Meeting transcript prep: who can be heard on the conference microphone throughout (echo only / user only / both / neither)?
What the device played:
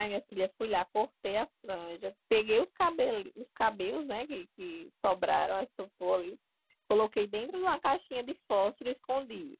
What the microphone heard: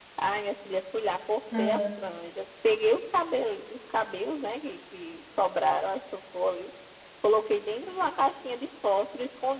both